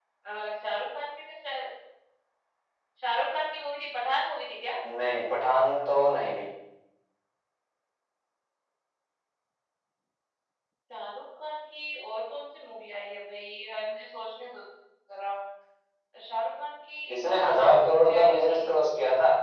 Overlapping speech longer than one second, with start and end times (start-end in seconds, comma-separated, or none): 17.1-18.6